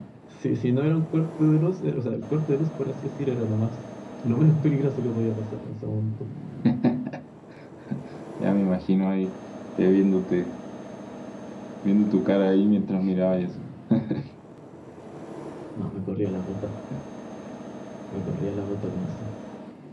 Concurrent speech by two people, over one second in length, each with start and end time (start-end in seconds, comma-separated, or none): none